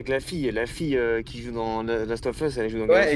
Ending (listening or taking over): taking over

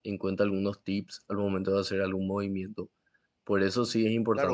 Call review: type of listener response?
taking over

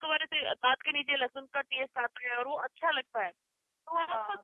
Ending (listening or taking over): listening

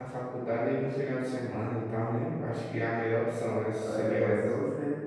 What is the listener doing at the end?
taking over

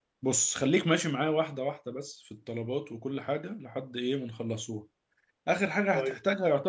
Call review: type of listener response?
listening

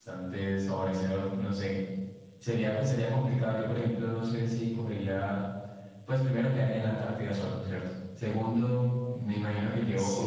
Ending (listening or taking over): listening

